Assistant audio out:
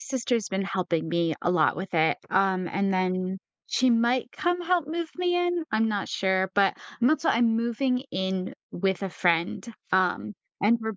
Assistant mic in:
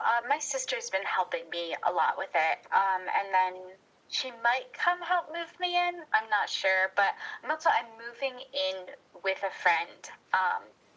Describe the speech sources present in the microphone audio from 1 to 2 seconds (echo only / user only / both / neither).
echo only